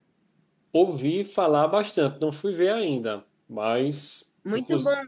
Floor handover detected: Yes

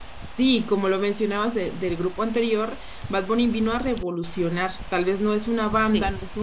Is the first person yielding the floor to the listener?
No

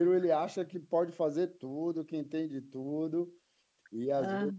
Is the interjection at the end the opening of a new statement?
No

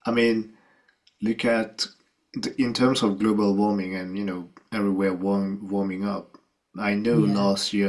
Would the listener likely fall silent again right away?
Yes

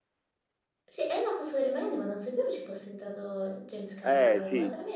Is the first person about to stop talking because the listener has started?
Yes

